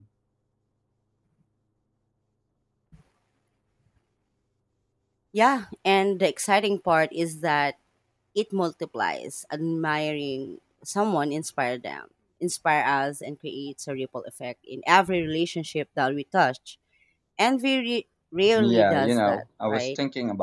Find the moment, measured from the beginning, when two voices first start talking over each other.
18.6 s

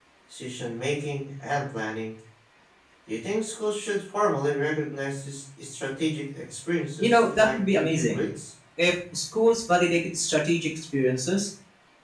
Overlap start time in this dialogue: 7.0 s

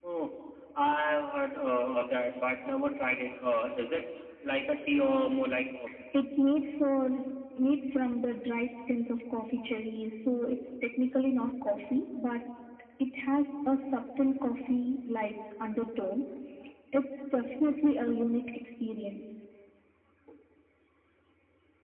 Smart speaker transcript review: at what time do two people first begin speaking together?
none

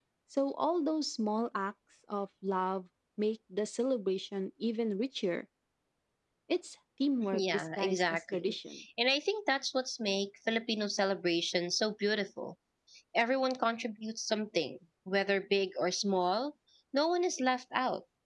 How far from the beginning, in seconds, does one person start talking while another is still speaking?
7.3 s

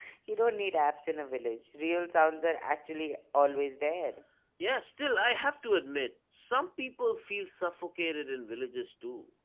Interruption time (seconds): none

